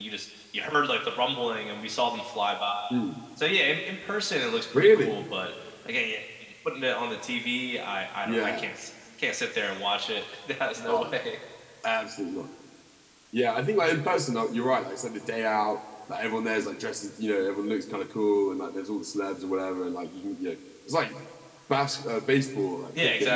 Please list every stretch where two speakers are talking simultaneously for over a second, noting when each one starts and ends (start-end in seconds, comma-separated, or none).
none